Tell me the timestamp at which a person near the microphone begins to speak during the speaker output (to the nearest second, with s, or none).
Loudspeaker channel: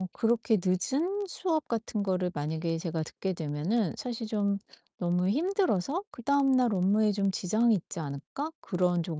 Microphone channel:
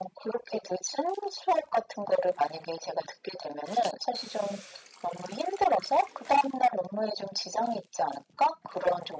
none